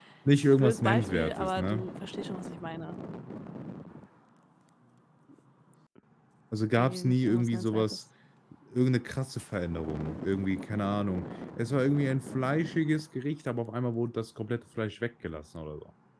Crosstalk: present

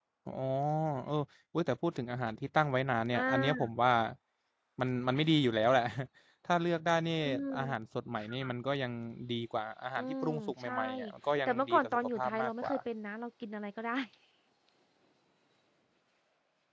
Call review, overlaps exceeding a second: present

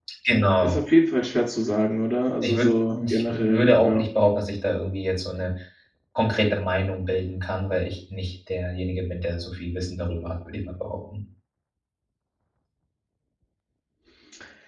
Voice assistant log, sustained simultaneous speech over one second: present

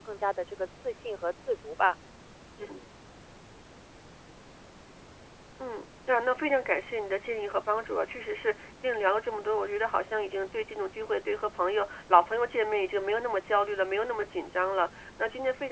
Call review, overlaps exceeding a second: none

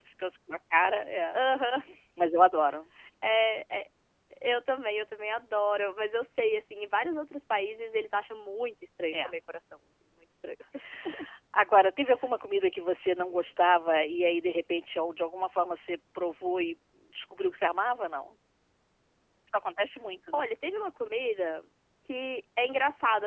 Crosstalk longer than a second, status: none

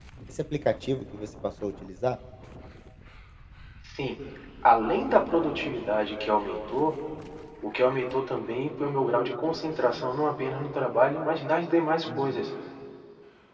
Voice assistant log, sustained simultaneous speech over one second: none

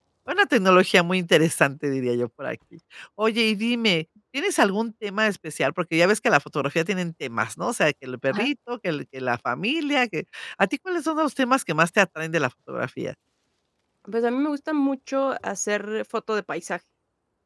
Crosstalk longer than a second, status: none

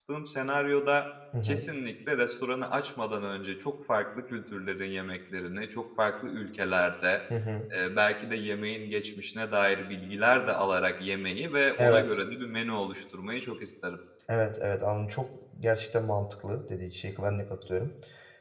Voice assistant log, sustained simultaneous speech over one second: none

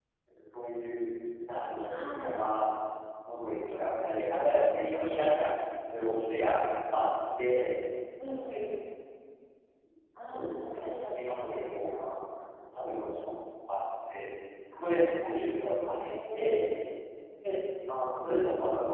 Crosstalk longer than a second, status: present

